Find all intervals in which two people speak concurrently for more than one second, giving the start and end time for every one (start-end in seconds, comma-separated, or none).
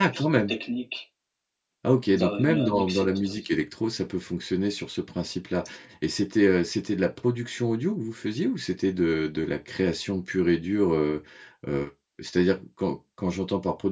2.1-3.4